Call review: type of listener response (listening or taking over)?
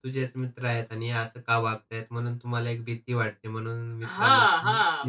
taking over